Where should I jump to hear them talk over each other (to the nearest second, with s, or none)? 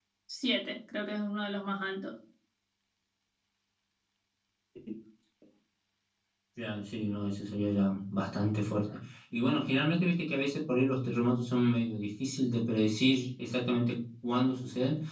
none